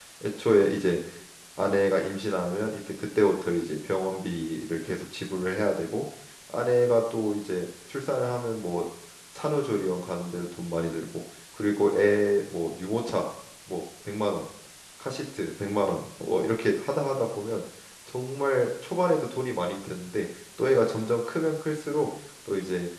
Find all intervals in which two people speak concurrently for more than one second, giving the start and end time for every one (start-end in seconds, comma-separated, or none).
none